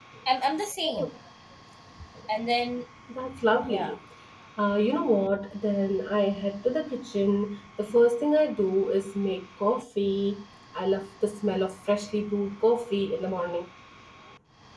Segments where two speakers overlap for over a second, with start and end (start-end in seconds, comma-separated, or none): none